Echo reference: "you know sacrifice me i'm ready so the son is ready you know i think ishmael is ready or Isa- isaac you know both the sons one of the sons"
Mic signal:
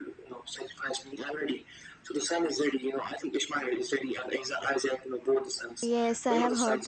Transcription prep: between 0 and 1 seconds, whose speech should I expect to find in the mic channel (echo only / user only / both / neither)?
echo only